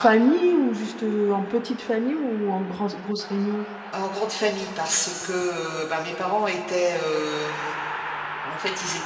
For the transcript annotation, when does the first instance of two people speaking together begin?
none

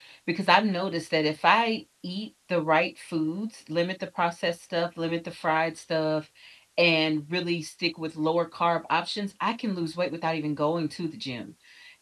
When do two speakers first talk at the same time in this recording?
none

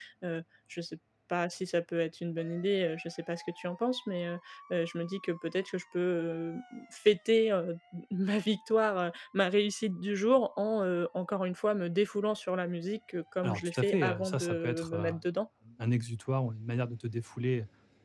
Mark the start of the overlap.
13.4 s

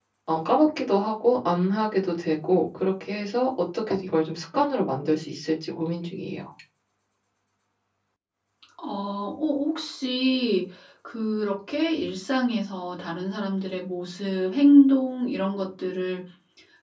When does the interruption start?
none

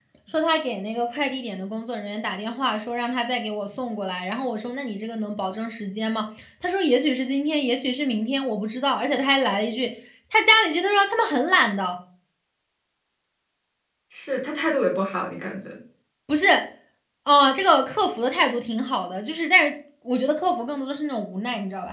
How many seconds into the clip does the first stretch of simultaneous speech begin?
none

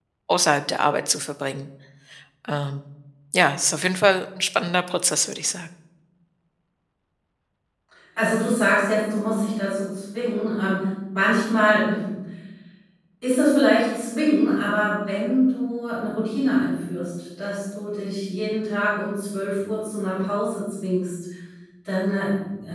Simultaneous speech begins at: none

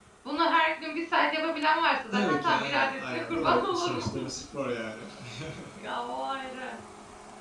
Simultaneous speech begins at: 2.1 s

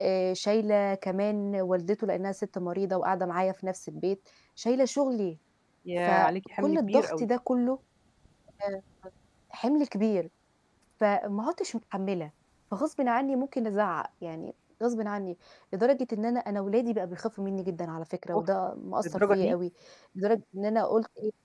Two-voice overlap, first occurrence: 6.1 s

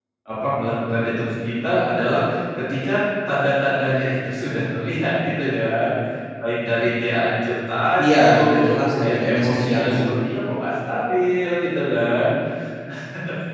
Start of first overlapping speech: 8.0 s

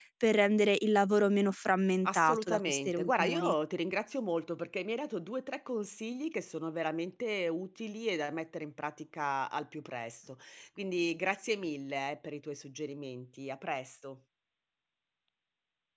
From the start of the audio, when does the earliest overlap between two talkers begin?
2.0 s

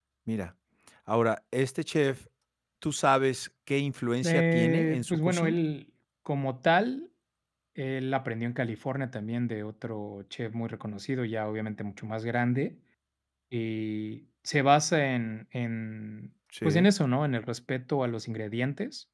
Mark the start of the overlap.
4.2 s

